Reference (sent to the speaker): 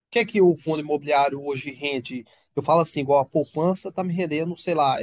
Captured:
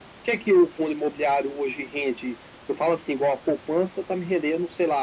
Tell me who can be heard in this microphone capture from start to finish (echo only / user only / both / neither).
echo only